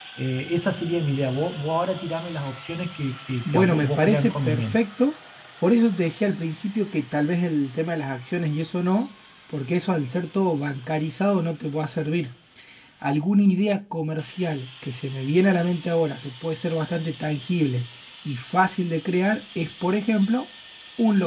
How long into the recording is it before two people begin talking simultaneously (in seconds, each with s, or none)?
3.4 s